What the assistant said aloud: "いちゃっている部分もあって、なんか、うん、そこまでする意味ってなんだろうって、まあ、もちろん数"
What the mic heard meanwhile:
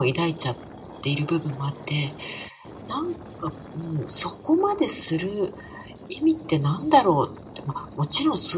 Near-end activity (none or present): none